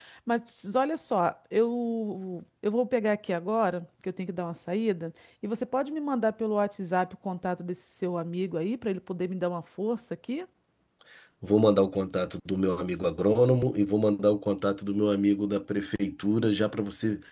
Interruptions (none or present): none